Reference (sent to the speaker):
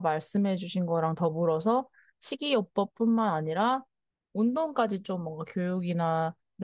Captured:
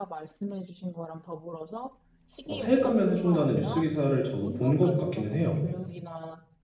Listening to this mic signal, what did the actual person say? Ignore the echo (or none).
어, 세액 감면해준다는 뉴스 기사를 저도 본 것 같기는 해요.